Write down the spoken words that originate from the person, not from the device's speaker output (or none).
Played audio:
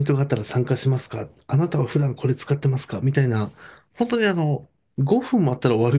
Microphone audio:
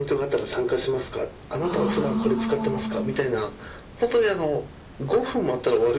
ああ、